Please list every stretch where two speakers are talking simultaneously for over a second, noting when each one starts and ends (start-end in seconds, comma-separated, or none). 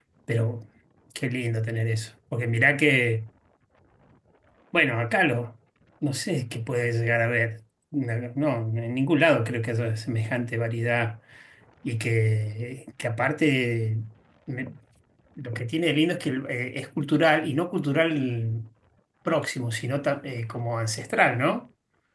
none